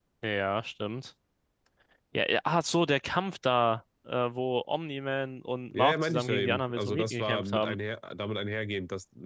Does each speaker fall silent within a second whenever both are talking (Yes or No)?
No